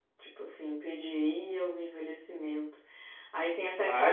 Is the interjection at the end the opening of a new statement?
Yes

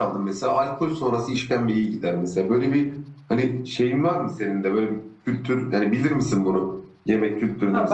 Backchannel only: No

